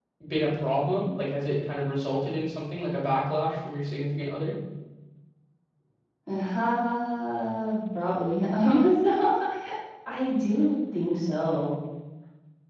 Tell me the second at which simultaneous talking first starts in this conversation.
none

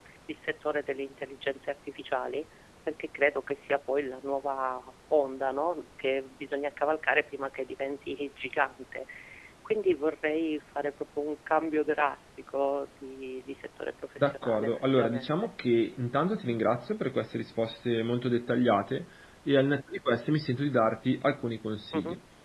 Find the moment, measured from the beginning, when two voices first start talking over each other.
14 s

